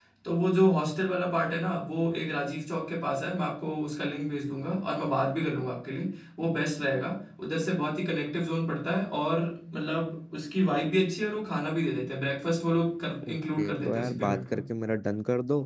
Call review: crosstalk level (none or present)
present